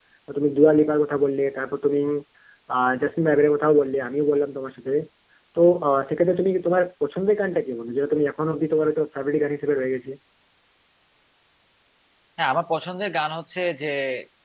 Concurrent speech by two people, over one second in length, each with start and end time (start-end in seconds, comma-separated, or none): none